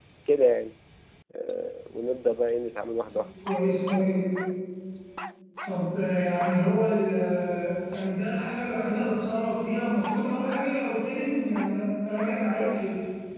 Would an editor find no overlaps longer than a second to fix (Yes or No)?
Yes